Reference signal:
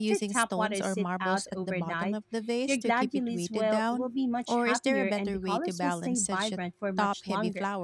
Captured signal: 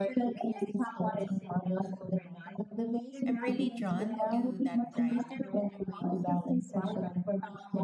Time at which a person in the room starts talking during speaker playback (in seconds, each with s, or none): 3.2 s